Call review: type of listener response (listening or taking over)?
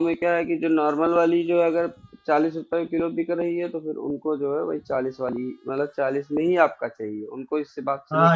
taking over